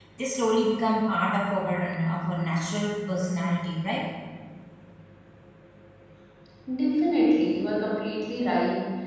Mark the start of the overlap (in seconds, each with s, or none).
none